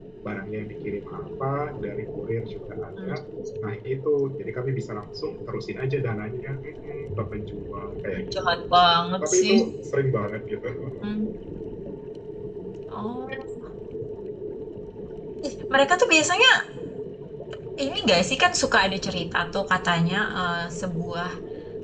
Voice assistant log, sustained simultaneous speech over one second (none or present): none